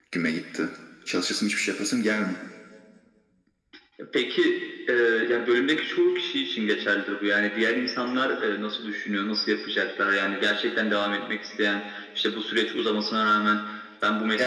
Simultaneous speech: No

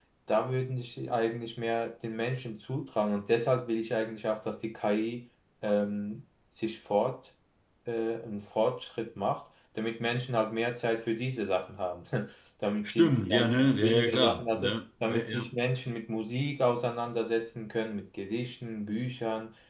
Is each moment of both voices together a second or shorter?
No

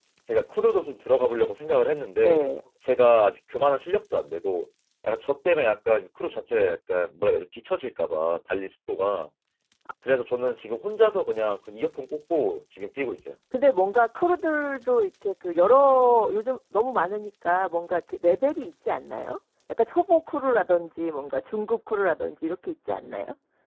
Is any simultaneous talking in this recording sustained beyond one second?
No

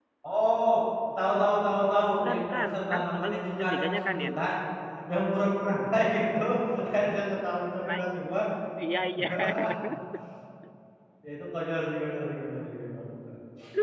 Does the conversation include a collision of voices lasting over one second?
Yes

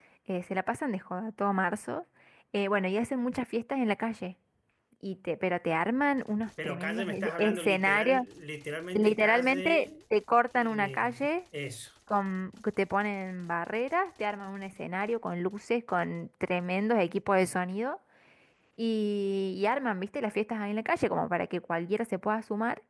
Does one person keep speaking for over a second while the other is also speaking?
Yes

